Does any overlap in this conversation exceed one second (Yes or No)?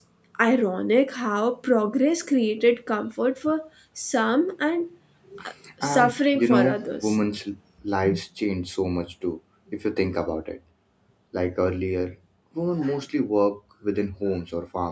Yes